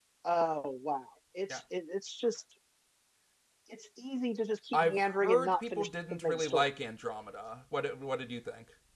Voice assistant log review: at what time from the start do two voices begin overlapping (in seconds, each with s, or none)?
4.7 s